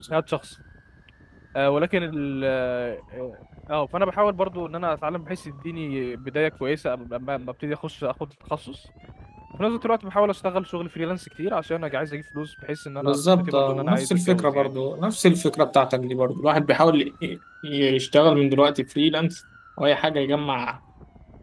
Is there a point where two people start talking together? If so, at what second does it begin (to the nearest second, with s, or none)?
13 s